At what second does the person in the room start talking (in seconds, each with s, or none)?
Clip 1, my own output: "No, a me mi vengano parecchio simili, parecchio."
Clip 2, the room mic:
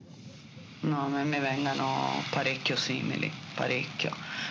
none